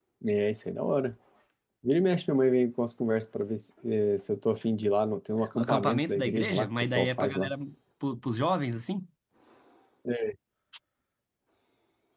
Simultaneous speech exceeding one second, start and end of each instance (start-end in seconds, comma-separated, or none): 5.5-7.5